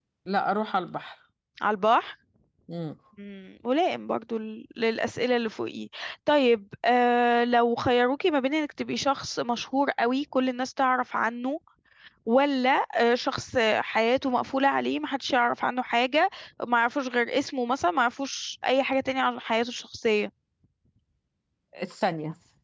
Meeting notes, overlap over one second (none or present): none